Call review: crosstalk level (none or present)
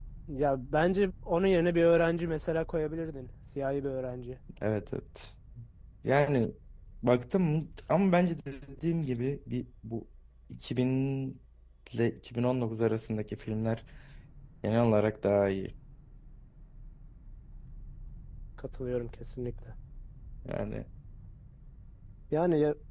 none